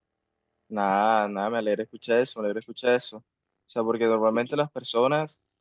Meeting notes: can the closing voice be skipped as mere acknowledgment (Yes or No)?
Yes